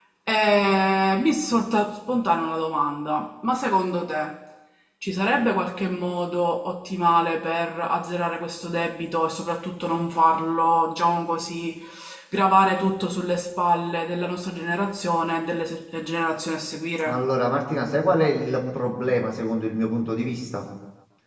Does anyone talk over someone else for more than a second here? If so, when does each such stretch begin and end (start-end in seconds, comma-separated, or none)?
none